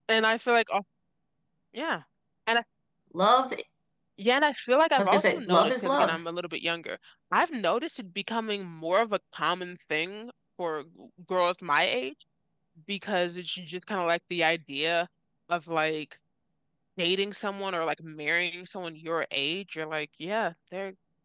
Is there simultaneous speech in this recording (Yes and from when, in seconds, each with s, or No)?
Yes, from 5.0 s